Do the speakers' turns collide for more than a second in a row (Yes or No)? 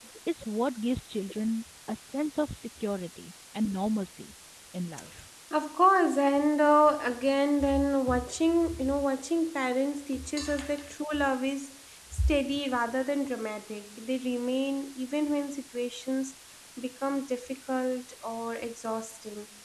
No